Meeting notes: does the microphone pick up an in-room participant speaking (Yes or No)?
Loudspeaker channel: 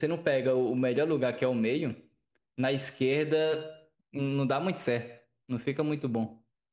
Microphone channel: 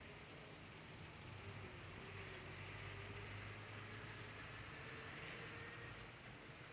No